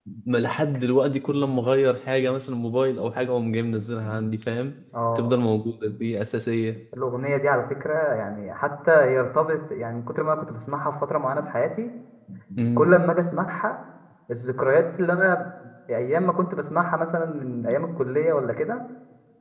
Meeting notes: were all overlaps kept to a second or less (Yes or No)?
Yes